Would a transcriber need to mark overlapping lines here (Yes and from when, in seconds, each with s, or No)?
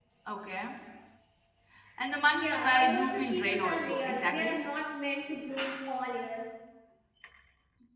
Yes, from 2.3 s